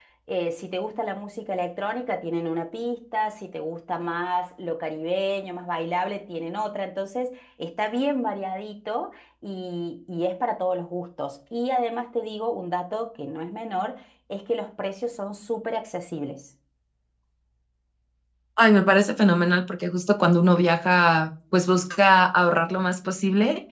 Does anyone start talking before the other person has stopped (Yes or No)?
No